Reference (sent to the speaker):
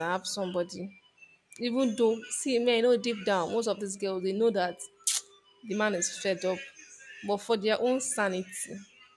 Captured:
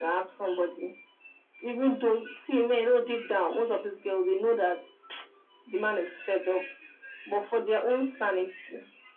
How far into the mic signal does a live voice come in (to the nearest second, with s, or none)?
none